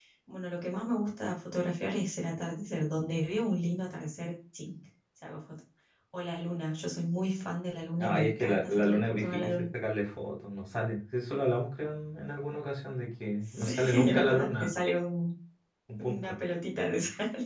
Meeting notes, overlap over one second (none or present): present